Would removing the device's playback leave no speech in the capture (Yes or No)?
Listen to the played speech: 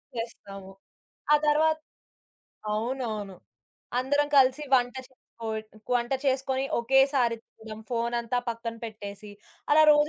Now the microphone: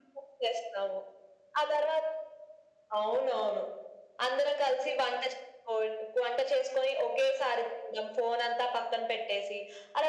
Yes